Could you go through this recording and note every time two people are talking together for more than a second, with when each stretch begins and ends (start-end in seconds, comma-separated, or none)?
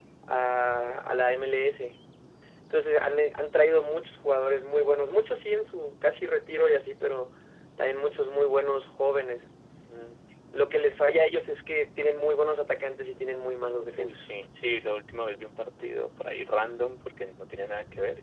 none